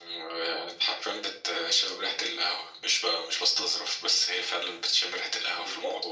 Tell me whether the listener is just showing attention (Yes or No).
No